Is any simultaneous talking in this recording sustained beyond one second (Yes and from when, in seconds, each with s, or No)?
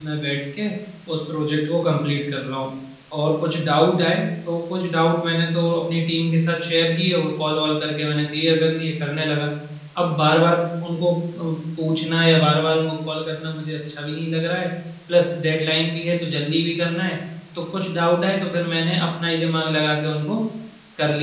No